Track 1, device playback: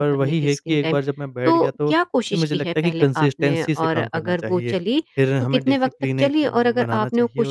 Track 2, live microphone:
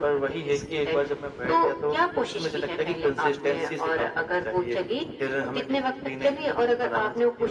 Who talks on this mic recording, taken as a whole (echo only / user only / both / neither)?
echo only